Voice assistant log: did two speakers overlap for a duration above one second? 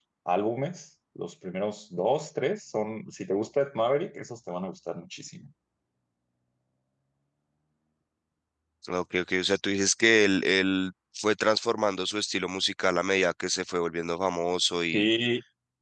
No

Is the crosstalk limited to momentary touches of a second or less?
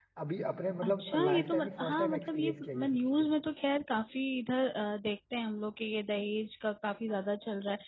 No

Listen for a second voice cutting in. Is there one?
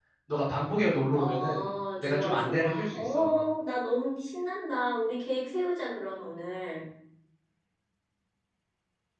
Yes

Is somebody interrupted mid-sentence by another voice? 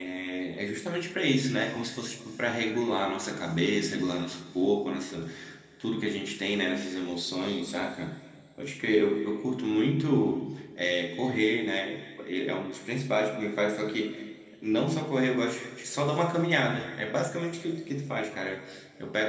No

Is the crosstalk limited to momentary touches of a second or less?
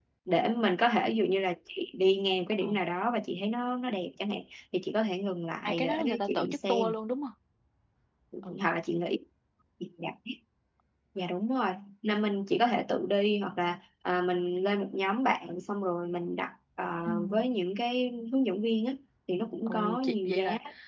No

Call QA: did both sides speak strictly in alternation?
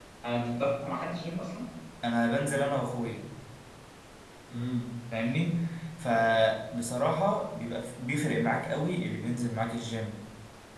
Yes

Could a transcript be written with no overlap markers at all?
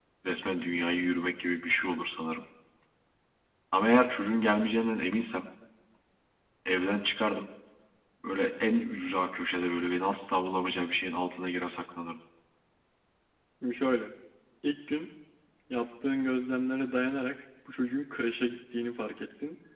Yes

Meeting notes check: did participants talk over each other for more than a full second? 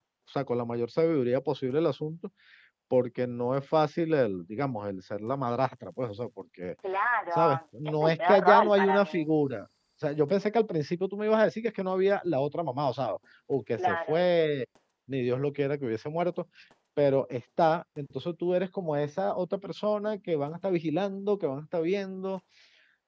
Yes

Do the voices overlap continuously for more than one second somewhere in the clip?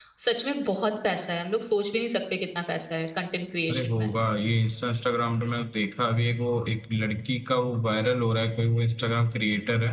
No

